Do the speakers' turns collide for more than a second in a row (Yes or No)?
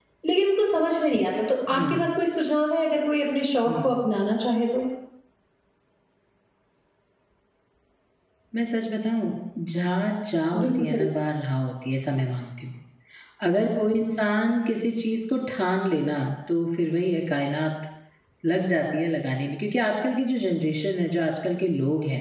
No